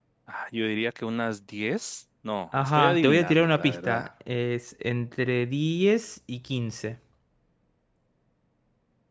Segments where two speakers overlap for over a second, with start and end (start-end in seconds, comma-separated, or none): 2.6-4.1